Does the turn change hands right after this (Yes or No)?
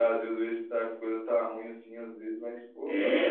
Yes